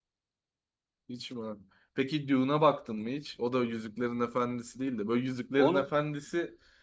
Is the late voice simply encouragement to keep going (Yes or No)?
Yes